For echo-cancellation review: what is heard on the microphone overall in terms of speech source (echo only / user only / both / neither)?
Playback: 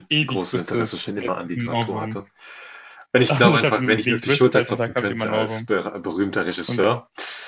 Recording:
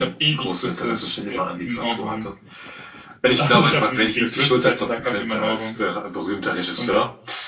echo only